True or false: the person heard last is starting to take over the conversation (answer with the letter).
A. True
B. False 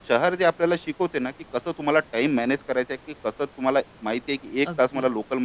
B